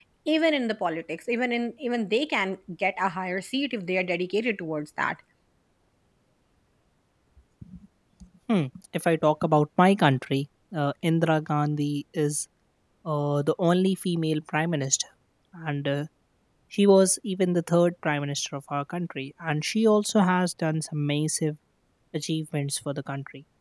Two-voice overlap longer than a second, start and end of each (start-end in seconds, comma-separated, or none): none